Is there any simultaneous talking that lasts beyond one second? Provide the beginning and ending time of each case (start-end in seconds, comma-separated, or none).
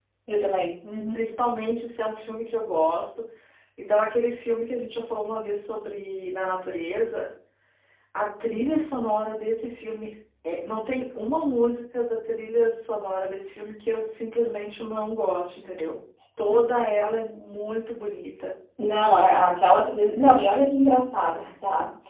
none